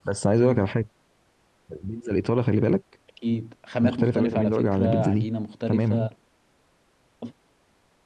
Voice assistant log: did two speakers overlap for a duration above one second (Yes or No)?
Yes